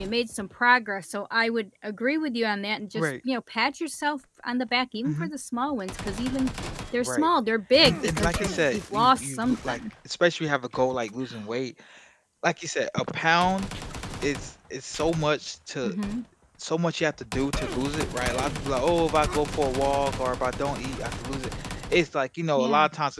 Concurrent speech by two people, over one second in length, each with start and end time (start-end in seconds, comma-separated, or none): 7.8-9.8